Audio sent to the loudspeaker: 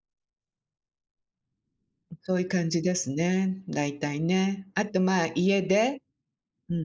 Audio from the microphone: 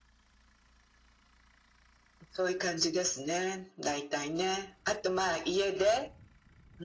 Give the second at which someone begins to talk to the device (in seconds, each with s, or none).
none